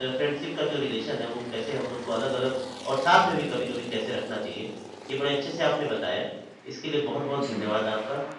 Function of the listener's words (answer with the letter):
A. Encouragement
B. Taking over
A